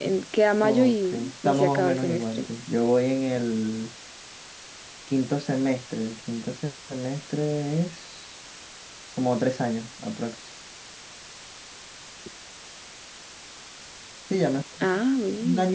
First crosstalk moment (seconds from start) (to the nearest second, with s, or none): 1 s